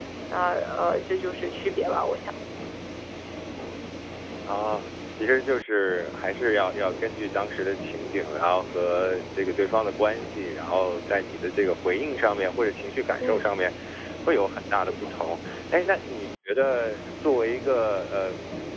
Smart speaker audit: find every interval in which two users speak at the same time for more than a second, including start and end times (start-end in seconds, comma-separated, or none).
none